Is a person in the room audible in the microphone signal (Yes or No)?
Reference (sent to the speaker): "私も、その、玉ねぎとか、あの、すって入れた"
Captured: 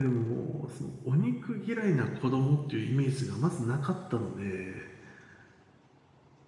Yes